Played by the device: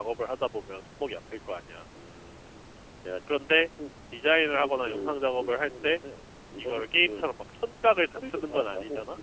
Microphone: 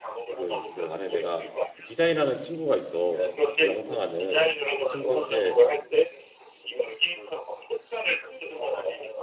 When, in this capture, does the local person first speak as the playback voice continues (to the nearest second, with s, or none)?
0 s